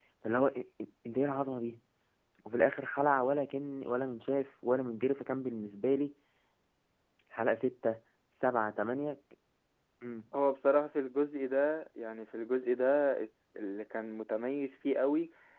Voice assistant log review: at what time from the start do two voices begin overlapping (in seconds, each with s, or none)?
none